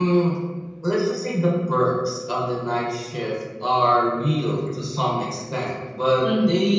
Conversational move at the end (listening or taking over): listening